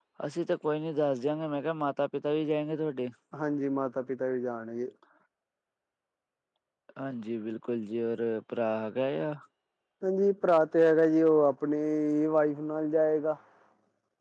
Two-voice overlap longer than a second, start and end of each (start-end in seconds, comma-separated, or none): none